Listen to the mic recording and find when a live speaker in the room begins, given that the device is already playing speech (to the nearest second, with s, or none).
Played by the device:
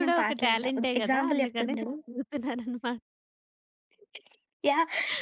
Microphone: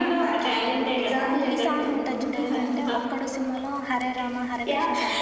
2 s